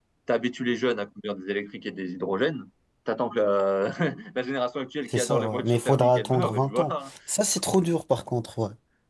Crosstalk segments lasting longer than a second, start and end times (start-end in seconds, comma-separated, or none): 5.1-7.1